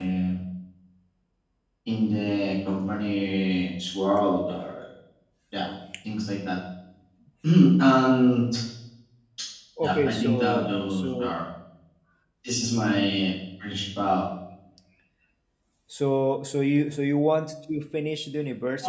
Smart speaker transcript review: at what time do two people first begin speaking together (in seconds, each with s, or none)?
9.8 s